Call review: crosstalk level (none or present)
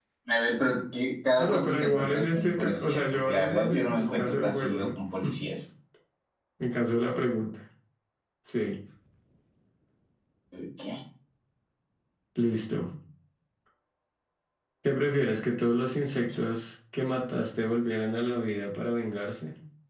present